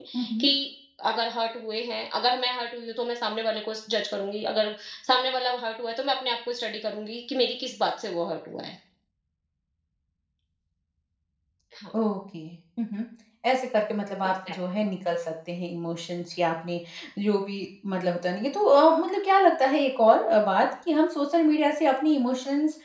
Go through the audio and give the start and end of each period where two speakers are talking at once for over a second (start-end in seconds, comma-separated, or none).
none